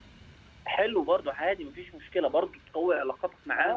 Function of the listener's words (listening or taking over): taking over